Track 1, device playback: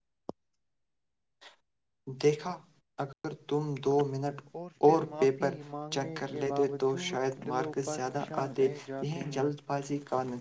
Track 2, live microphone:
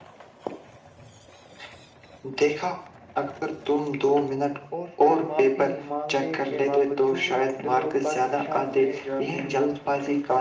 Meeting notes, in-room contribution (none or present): none